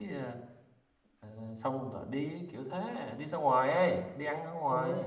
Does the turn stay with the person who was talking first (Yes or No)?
No